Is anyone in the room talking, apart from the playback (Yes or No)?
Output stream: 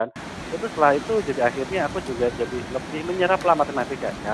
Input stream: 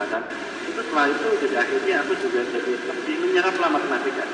No